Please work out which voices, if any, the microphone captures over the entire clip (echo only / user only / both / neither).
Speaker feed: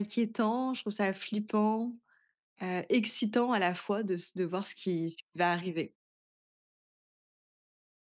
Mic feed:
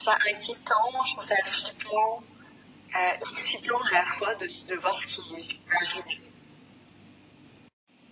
echo only